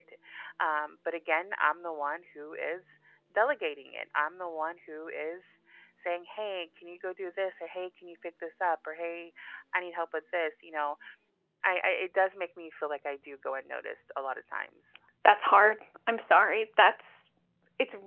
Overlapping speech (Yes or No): No